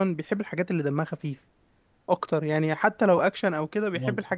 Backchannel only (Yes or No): Yes